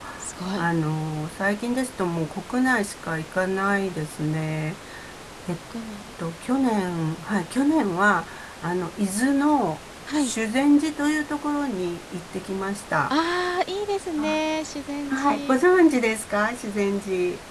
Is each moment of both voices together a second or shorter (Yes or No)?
Yes